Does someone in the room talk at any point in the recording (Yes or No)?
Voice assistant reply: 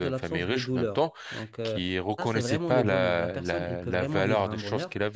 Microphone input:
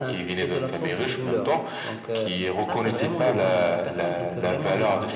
No